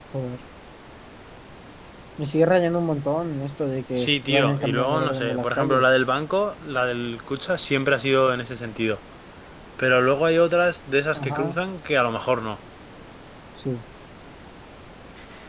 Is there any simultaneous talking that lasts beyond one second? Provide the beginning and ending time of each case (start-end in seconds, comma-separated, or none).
4.0-5.9